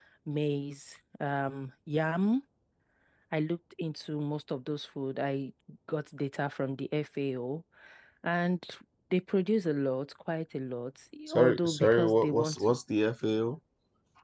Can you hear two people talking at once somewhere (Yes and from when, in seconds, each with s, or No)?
Yes, from 11.3 s